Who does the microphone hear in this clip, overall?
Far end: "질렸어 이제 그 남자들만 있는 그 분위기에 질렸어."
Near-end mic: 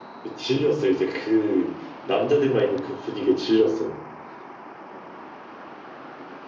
echo only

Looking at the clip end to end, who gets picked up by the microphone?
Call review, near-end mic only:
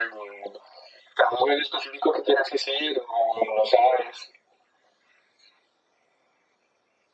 echo only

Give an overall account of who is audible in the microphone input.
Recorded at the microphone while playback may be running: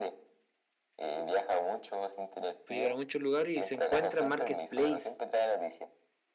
both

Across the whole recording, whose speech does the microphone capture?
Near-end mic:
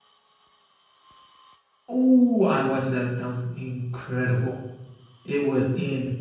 user only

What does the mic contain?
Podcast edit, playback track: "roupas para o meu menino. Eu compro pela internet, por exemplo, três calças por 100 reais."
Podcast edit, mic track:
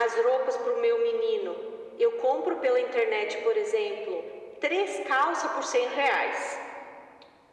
echo only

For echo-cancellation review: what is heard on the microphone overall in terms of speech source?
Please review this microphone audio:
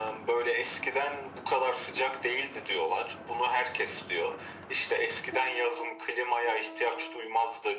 echo only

